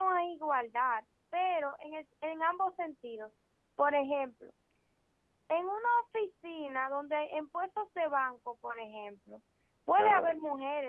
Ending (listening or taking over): listening